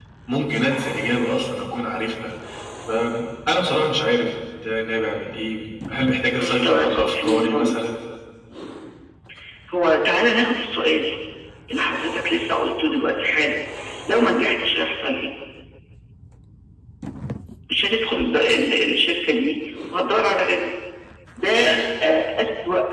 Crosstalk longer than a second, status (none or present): present